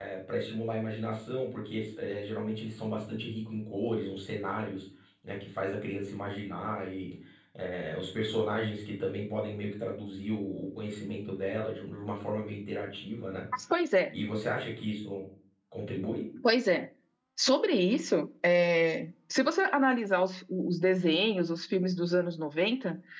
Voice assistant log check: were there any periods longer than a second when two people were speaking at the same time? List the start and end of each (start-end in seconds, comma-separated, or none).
none